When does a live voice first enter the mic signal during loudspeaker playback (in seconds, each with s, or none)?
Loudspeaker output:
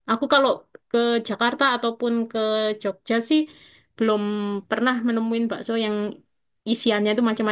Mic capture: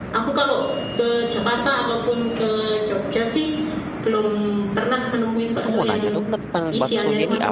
5.6 s